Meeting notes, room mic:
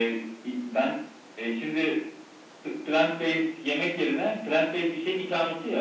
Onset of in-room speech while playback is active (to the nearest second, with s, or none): none